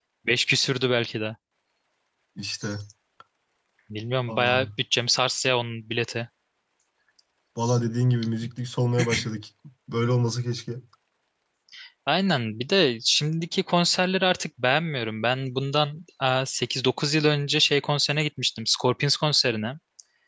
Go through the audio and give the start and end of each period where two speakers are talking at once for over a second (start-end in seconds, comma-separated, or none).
none